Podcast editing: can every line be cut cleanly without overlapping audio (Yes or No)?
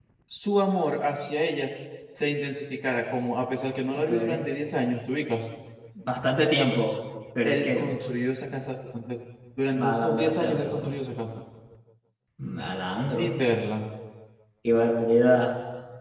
No